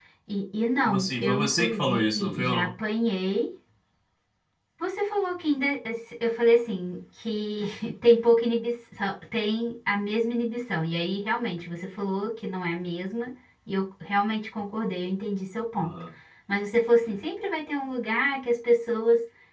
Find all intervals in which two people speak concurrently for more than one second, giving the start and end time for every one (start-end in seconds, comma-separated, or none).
0.8-2.7